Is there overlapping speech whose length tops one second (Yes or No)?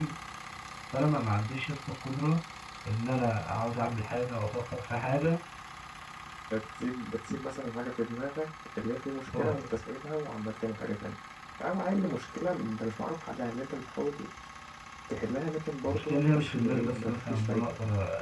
Yes